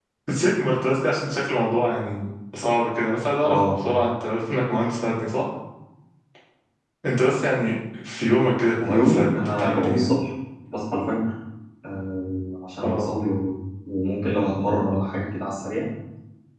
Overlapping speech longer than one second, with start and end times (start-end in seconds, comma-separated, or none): 8.9-10.1